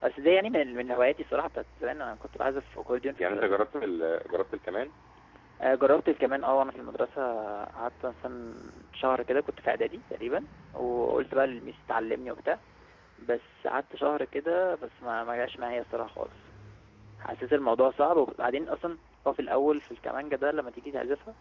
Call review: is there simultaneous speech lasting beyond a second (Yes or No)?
No